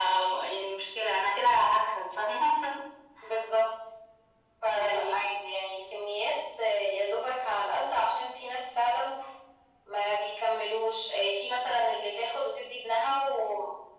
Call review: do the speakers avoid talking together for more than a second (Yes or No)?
Yes